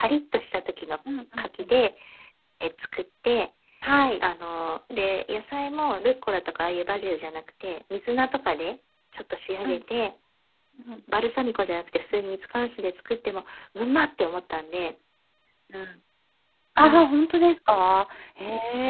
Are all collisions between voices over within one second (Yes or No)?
Yes